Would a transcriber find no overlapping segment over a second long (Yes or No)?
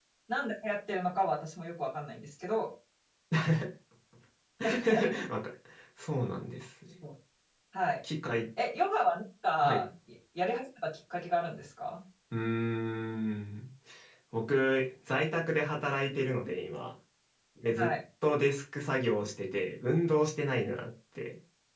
Yes